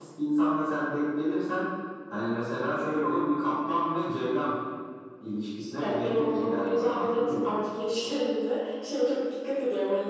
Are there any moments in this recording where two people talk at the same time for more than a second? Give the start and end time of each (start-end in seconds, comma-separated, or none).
5.8-7.5